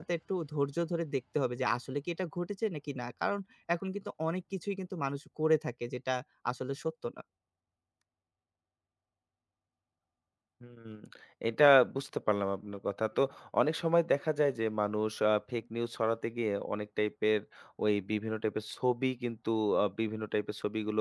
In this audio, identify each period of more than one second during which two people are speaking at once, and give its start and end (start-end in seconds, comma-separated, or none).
none